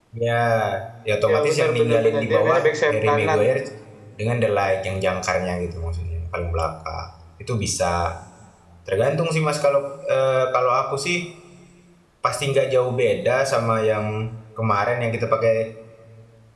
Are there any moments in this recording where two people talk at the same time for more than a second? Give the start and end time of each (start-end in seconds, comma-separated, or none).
1.2-3.4